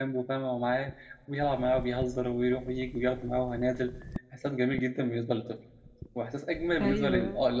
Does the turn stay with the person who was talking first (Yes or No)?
Yes